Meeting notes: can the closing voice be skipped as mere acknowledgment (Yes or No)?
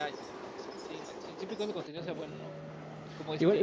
No